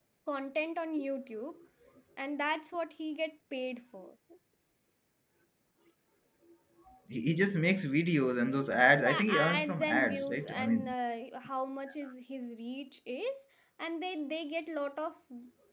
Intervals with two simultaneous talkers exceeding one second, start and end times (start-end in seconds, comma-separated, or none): 8.9-10.9